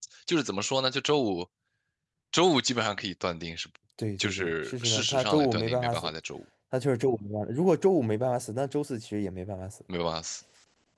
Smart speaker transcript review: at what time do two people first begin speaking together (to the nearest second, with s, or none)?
4 s